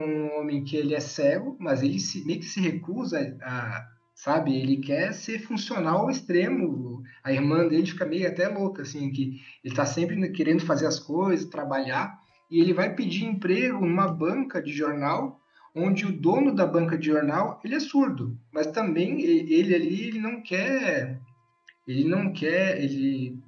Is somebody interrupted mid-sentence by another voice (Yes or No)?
No